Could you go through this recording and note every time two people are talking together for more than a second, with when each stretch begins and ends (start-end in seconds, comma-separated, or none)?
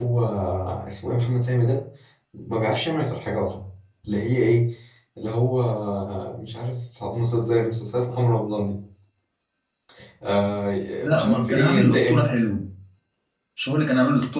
11.0-12.2